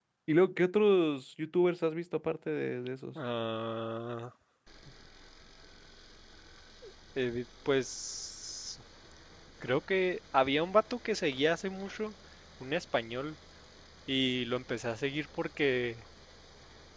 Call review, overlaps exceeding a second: none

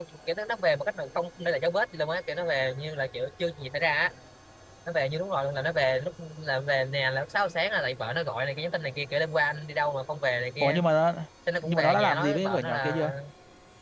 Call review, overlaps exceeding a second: present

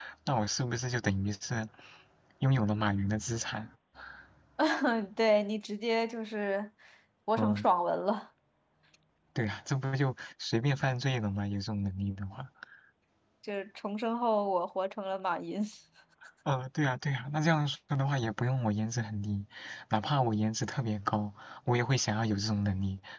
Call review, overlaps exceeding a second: none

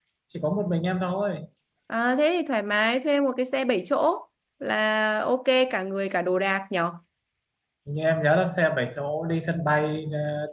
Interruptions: none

